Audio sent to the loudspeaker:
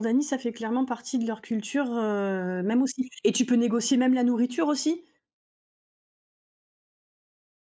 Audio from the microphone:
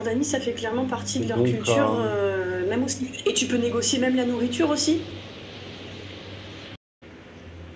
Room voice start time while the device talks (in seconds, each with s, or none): 1.2 s